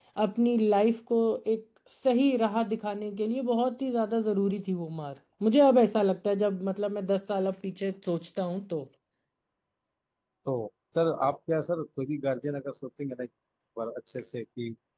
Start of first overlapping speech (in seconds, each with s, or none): none